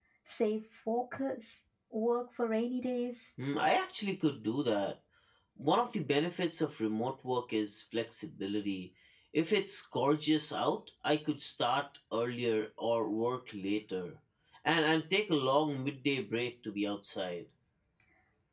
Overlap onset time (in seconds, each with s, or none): none